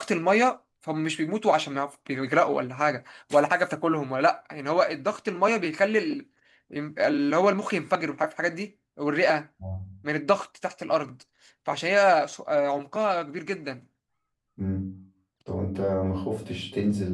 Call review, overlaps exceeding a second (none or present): none